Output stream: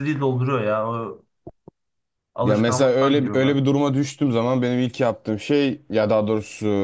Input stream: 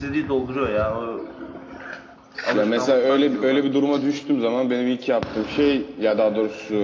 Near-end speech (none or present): none